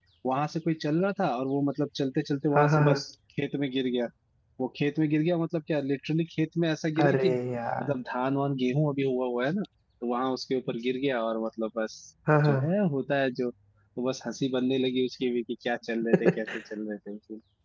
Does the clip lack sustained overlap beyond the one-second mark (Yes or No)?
Yes